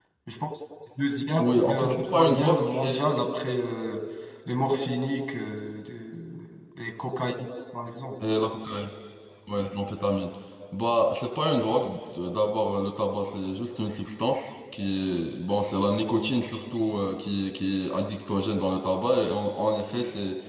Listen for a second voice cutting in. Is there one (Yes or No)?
Yes